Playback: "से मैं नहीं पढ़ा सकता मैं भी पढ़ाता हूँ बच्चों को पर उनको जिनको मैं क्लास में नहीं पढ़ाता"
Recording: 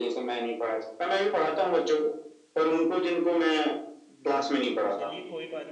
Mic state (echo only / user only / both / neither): both